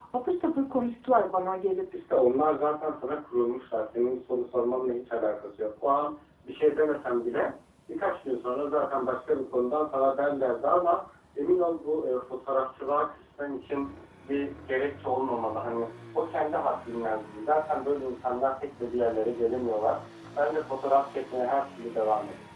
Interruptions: none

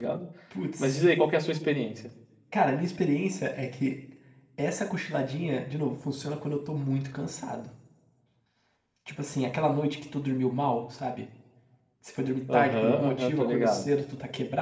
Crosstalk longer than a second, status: present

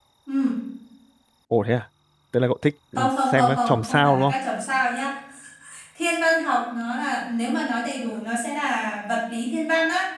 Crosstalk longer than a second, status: present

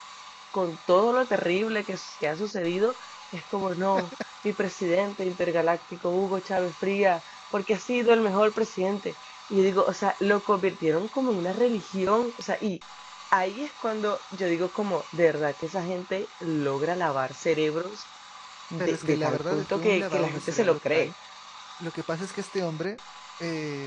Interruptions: present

